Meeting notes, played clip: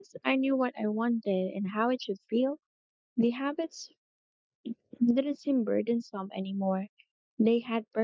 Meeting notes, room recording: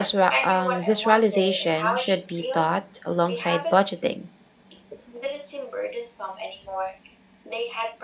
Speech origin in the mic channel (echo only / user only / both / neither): both